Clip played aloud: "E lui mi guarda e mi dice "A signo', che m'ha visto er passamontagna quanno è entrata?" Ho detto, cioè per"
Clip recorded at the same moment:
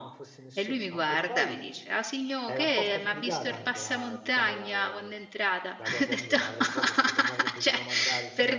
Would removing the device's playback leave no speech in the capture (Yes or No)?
No